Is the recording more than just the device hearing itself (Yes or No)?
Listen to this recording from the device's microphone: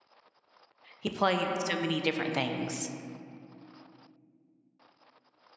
Yes